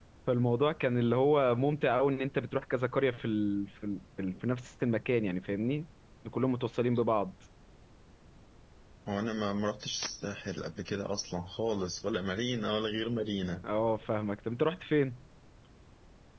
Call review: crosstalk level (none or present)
none